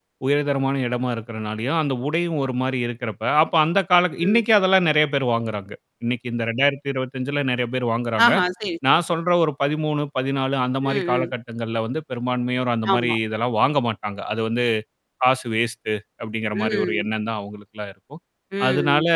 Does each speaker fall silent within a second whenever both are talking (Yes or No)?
Yes